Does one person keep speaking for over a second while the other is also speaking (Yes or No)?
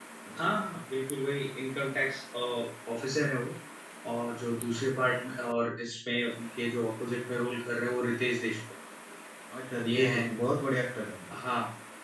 No